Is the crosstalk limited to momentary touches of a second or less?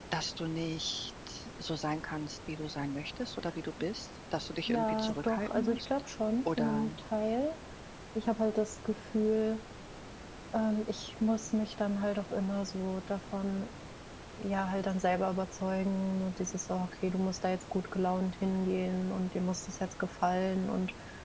No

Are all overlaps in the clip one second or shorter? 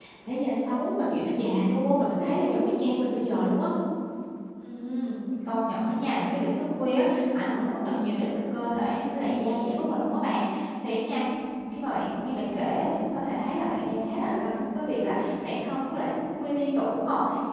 Yes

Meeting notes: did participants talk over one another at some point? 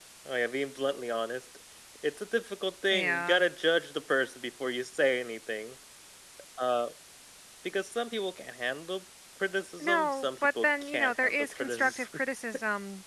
Yes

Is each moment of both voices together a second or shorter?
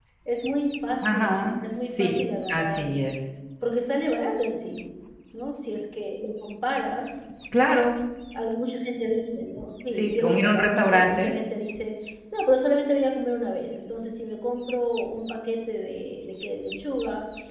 No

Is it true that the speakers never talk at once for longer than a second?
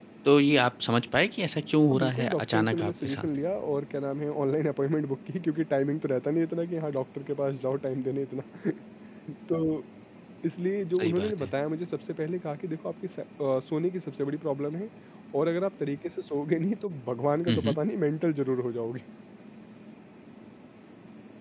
No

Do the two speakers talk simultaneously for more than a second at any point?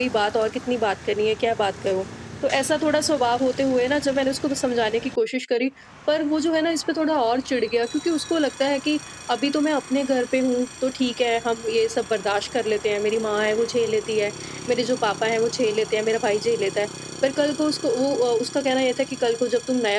No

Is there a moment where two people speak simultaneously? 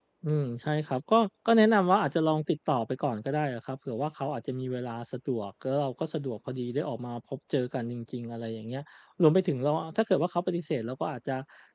No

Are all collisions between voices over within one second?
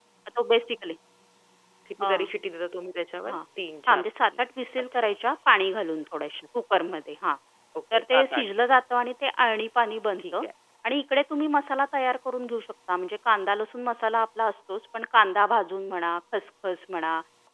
Yes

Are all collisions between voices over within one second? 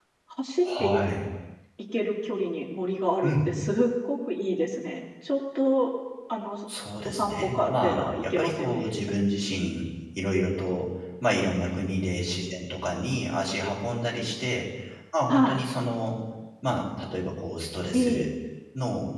No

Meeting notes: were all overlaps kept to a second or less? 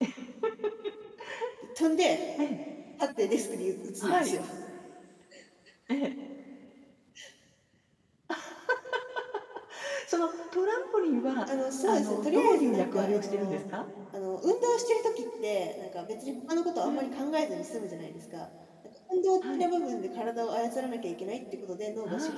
No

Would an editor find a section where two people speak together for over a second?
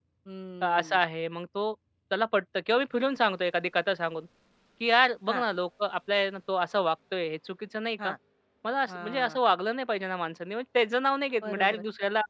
No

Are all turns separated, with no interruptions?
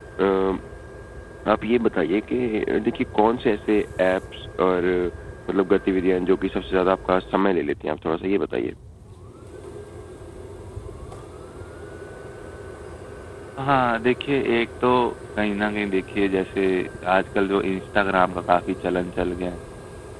Yes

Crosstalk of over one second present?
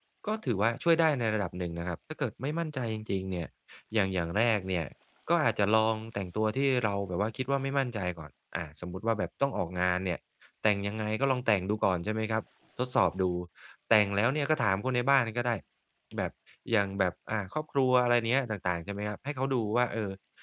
No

